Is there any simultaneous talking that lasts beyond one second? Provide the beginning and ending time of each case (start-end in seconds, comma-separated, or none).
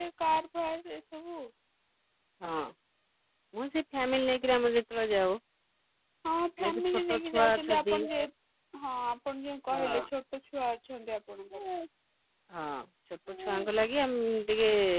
6.6-8.0